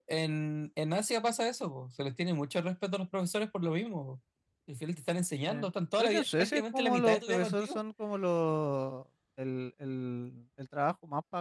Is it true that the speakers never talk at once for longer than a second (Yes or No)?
No